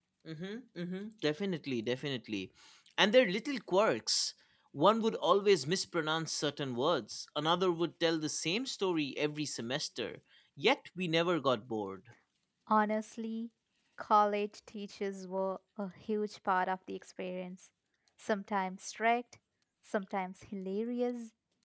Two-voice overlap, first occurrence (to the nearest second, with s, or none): none